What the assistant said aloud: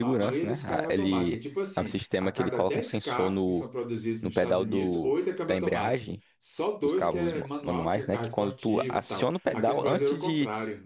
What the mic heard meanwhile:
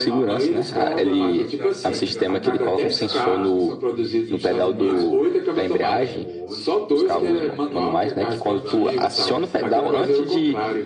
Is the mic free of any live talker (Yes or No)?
No